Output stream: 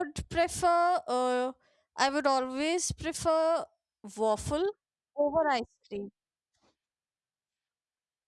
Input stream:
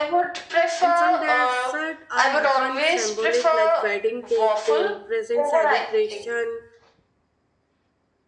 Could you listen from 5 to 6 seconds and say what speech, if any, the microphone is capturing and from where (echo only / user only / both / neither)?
both